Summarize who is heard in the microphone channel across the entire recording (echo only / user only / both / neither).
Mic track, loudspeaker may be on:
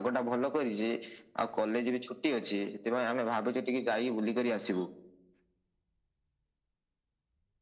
echo only